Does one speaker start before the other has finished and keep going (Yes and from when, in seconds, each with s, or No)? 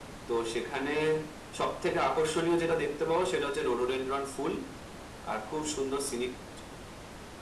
No